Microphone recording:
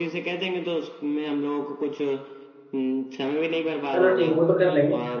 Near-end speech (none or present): present